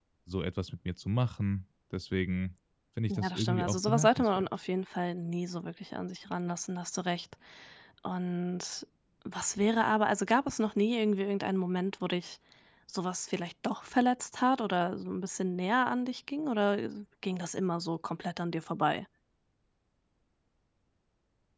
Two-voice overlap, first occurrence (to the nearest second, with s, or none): 3 s